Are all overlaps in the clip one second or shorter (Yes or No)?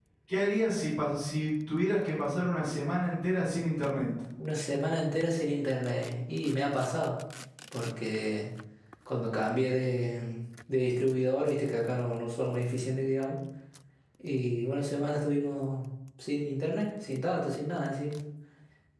Yes